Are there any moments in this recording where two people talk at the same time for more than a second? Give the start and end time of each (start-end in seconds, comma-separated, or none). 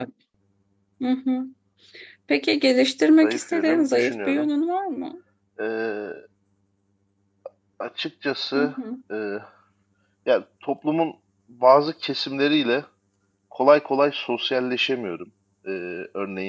3.2-4.5